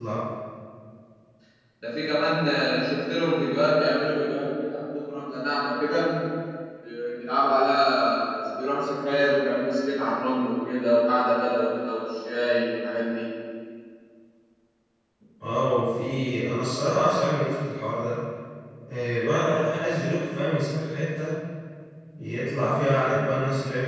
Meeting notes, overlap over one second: none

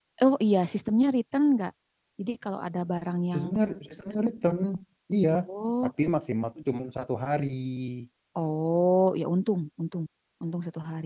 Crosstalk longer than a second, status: none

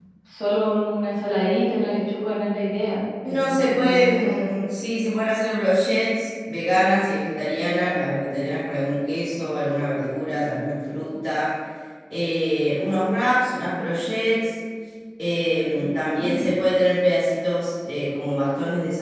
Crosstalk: present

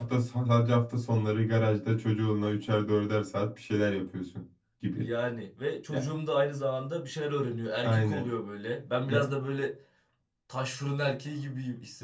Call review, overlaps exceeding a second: none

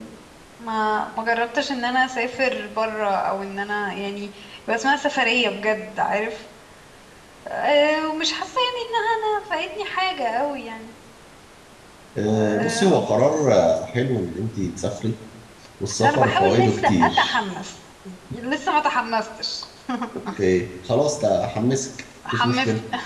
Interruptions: present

